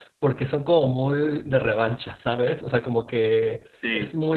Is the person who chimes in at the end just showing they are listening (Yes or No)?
Yes